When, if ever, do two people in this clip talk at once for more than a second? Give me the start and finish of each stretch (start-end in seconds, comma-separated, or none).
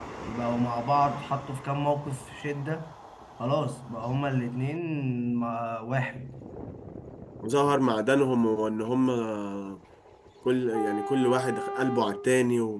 none